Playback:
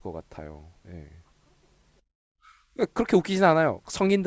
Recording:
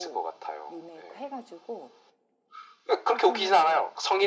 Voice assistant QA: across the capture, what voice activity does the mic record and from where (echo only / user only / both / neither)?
both